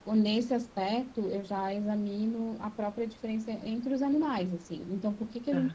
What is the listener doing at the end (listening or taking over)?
listening